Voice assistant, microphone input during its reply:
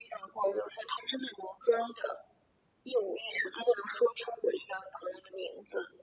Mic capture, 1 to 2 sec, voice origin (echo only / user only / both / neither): echo only